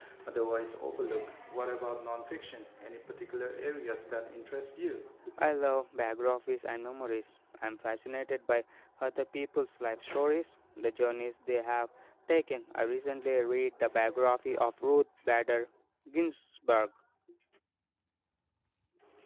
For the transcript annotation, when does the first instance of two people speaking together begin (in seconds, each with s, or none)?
none